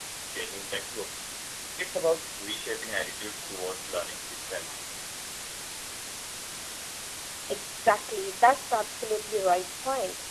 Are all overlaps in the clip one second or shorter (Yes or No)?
Yes